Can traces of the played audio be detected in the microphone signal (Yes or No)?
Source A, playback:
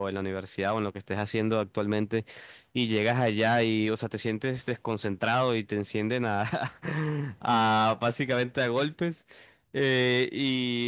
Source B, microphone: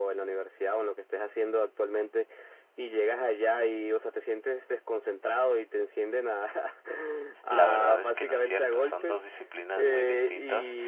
Yes